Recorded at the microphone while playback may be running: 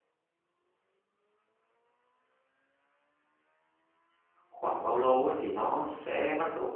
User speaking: Yes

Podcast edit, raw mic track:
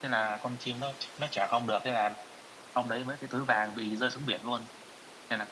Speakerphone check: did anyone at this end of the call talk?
Yes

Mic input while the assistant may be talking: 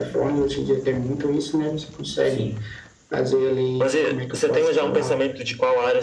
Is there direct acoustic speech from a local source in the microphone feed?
Yes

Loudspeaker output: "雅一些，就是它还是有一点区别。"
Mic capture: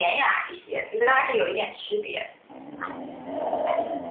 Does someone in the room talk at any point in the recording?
No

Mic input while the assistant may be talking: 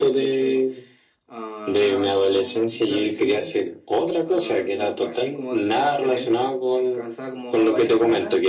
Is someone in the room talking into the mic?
No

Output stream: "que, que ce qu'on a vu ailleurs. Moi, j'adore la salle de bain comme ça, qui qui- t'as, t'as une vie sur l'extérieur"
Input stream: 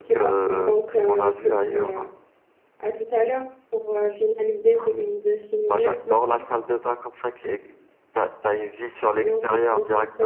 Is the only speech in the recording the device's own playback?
No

